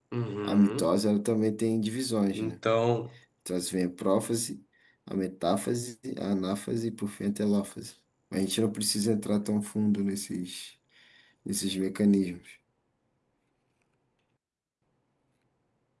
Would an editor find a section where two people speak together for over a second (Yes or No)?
No